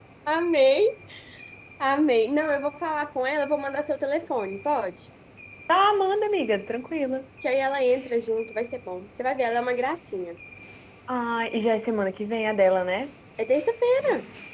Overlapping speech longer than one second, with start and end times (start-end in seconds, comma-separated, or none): none